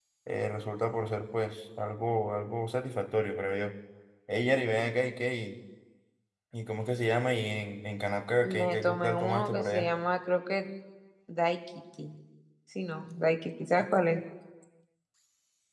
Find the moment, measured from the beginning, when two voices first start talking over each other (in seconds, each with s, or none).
8.4 s